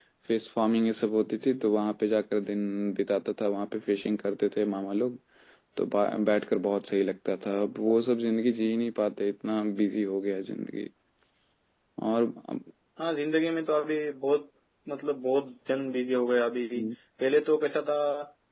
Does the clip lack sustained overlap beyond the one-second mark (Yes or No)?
Yes